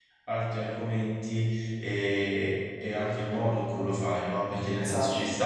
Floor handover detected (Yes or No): No